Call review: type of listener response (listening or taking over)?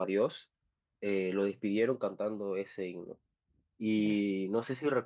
listening